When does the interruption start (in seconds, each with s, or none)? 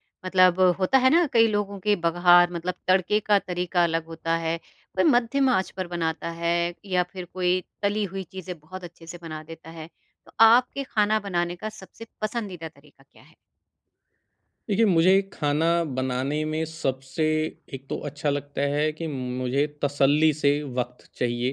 none